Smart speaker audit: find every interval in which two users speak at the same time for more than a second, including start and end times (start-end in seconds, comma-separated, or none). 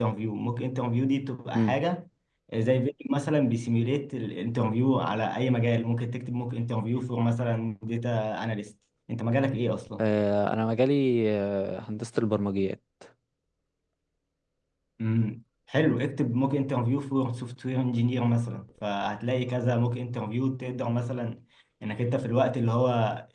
none